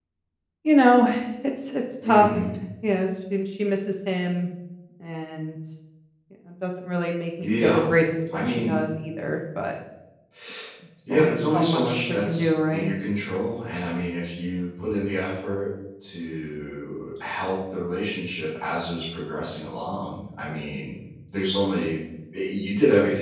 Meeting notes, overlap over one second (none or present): present